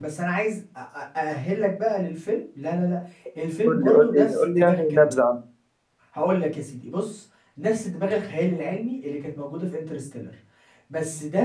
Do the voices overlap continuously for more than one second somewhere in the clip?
Yes, from 3.7 s

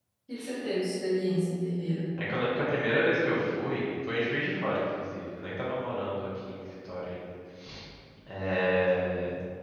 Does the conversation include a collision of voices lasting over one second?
No

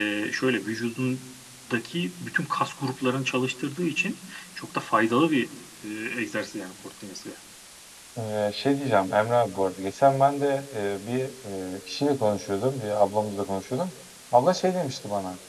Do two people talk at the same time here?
No

